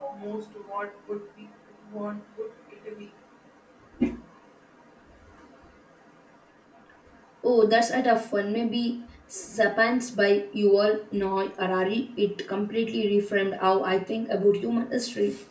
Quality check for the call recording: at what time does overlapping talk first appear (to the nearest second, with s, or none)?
none